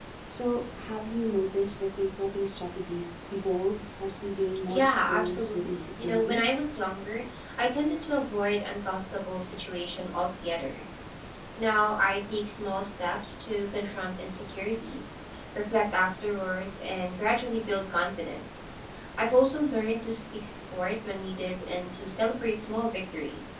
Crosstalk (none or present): present